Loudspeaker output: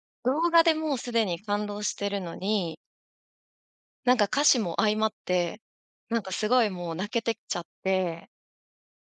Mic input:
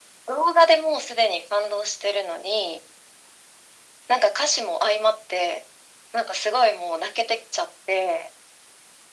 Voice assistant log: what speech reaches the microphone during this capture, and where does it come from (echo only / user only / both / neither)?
echo only